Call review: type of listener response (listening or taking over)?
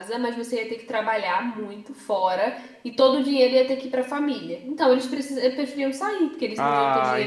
taking over